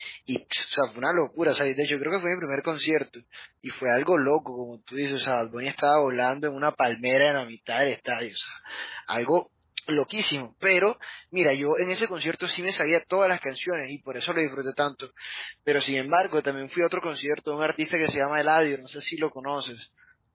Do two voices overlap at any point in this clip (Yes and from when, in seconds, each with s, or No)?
No